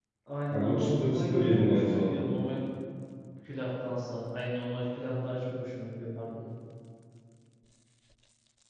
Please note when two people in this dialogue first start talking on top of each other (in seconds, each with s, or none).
0.5 s